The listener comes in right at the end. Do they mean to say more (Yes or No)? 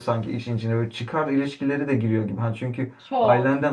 No